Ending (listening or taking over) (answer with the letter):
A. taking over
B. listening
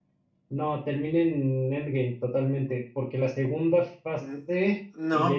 A